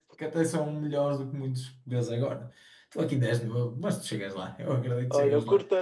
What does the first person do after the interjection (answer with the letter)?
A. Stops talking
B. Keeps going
A